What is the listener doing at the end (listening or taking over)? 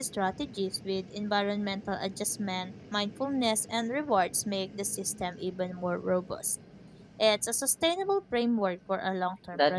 taking over